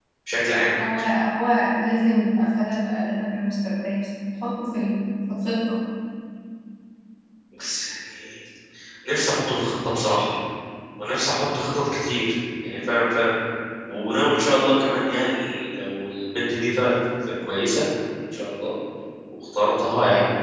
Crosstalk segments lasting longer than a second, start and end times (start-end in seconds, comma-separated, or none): none